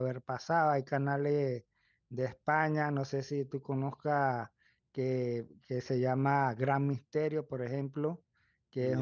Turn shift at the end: No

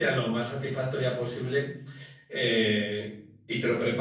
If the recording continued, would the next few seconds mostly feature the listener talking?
No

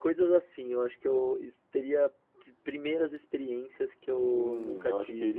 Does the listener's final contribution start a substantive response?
Yes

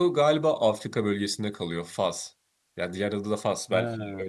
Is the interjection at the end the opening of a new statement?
Yes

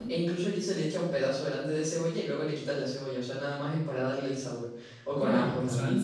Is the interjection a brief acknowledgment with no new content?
No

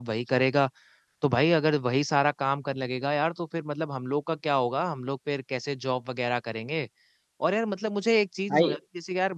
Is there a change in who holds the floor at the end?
No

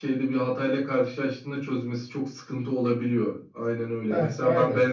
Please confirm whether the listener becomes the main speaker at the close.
No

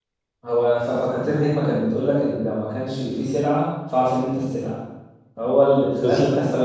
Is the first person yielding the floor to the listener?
No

